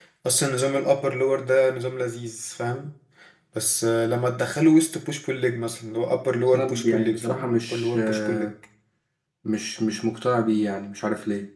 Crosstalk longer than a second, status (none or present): present